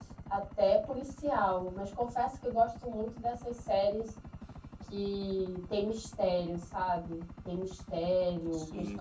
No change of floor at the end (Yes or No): Yes